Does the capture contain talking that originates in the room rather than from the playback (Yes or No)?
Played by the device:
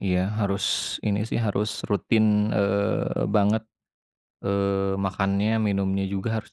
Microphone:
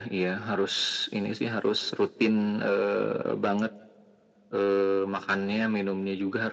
No